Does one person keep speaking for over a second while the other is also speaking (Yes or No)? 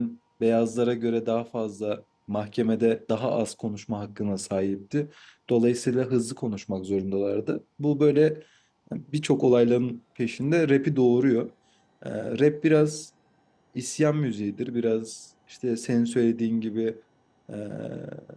No